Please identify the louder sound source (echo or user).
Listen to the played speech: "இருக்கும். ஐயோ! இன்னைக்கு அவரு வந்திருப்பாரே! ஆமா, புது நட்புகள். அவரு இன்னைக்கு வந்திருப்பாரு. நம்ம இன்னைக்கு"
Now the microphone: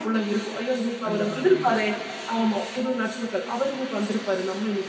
echo